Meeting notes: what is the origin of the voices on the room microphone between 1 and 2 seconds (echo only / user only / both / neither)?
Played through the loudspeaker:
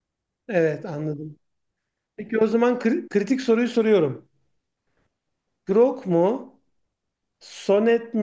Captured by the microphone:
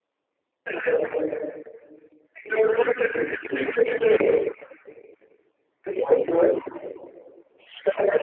echo only